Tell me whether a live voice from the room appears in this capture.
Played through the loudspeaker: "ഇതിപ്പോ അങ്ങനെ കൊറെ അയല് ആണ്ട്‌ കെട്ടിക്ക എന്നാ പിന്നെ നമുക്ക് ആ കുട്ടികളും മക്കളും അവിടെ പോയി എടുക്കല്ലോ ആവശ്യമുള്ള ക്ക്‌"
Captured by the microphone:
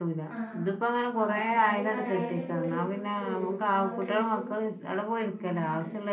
Yes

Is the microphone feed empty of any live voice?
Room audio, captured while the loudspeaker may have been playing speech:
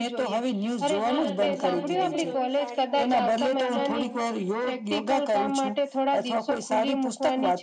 No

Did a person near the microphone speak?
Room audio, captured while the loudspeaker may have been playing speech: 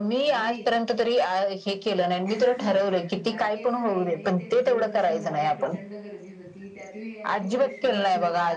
Yes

